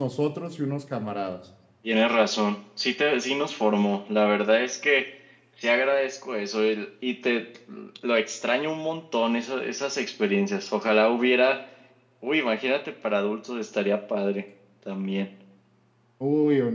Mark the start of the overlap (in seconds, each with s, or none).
none